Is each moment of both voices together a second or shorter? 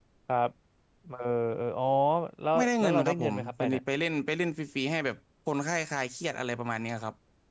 No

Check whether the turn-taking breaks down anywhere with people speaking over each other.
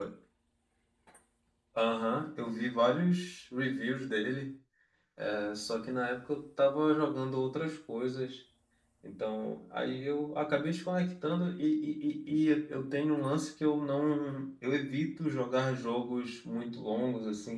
No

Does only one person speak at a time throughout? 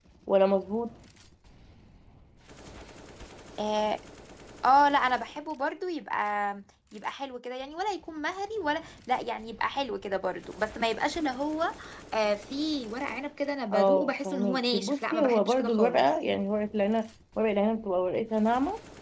No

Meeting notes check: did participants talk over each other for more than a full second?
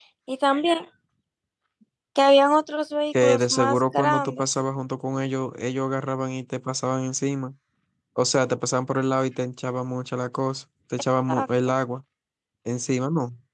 Yes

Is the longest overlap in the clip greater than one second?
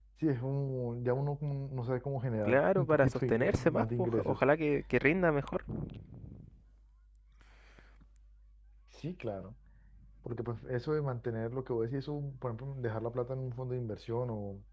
Yes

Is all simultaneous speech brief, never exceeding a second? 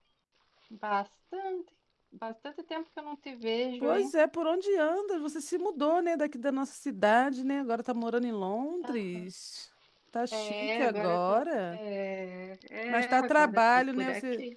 No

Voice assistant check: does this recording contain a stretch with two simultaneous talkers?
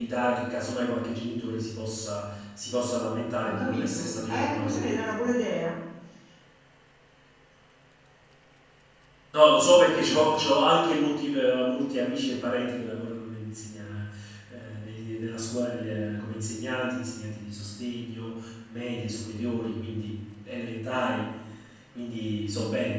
Yes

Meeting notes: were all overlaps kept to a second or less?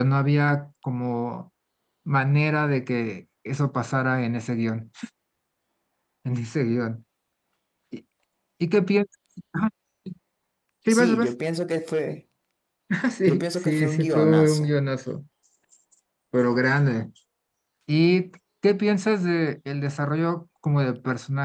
No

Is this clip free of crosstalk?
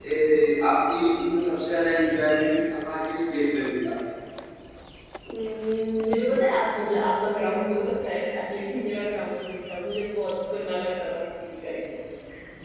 Yes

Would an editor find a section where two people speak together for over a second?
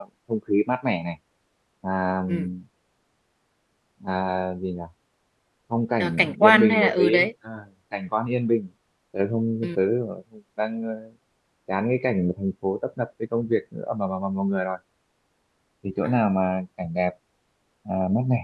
Yes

